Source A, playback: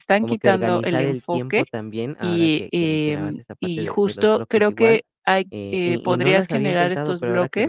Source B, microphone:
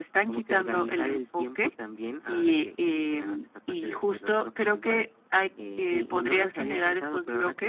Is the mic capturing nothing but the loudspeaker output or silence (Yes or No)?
Yes